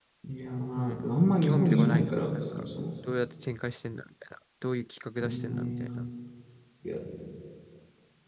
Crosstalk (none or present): present